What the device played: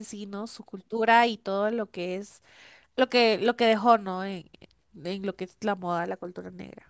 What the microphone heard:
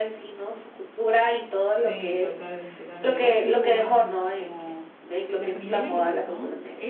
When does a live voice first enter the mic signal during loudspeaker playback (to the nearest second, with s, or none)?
2 s